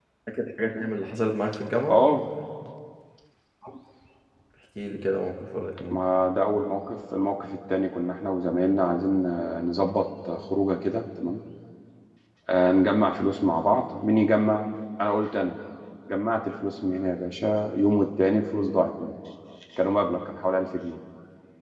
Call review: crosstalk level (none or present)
none